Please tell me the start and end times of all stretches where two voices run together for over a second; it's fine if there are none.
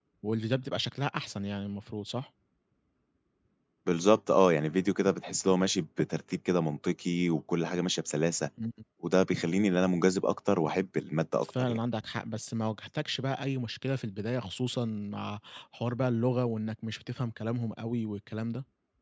none

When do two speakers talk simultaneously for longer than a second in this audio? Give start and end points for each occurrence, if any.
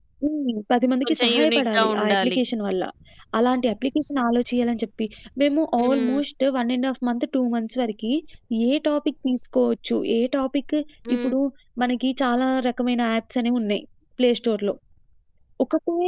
1.0-2.4

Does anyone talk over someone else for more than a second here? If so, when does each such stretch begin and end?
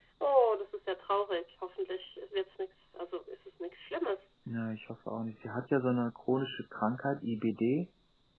none

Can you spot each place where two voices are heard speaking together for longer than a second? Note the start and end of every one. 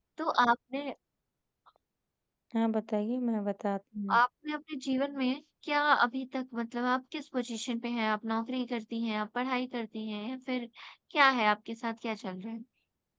none

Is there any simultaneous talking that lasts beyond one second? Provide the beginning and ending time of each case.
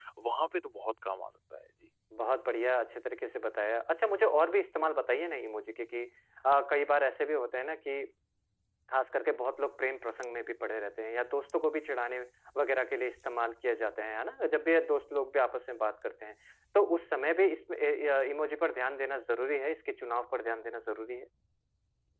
none

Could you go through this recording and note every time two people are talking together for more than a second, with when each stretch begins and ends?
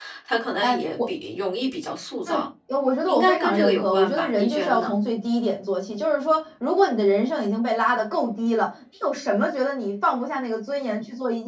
3.0-4.9

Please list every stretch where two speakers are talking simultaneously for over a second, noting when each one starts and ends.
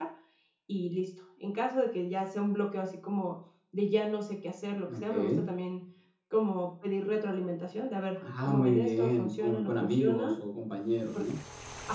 8.4-10.3

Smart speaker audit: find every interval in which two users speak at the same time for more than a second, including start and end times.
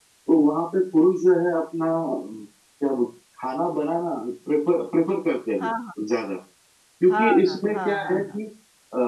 7.1-8.4

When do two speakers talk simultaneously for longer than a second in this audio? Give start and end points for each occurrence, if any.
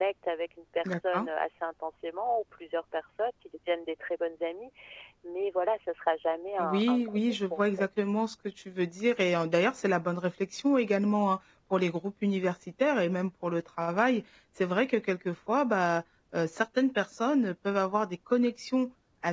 6.6-7.9

